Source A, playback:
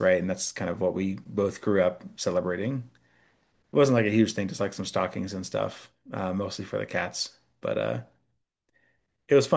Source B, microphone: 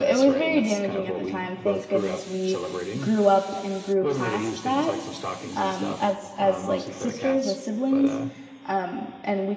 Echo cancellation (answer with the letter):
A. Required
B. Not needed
A